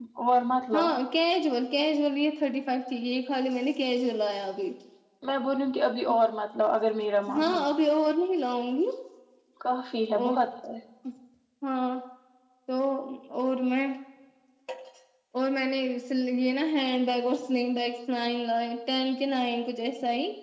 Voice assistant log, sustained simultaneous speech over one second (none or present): none